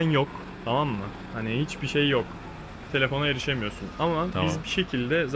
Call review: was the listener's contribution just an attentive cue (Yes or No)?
Yes